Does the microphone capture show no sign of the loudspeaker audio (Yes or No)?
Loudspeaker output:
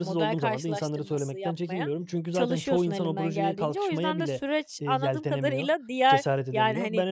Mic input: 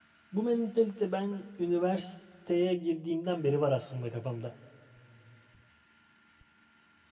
Yes